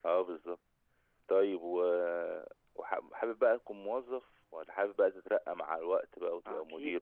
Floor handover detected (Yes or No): Yes